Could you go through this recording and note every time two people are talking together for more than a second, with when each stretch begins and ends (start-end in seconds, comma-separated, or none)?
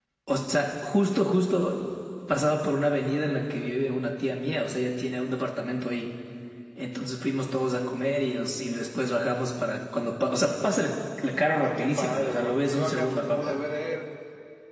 11.6-13.6